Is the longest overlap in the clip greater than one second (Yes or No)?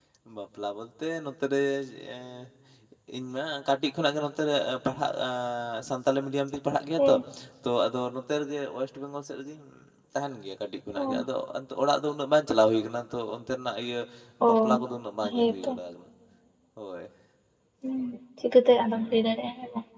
No